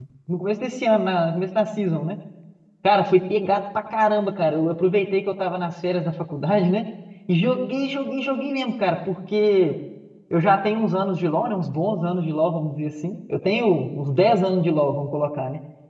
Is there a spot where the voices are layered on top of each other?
No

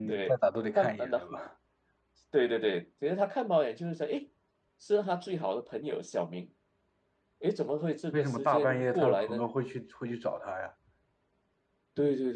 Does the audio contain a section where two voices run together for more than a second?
Yes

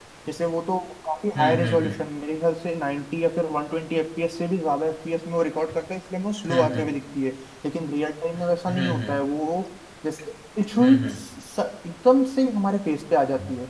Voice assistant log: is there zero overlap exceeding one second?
Yes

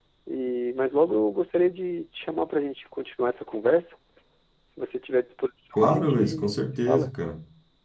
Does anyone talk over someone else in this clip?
Yes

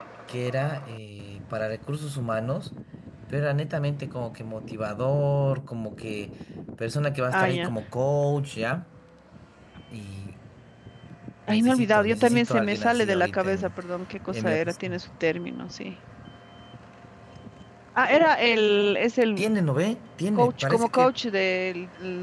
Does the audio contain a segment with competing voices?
Yes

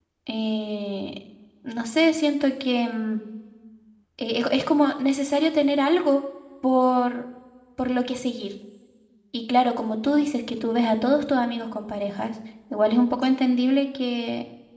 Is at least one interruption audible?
No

